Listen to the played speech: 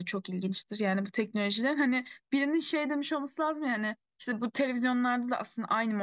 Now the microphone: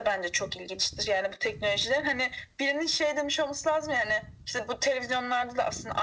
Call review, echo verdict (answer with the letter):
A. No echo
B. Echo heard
B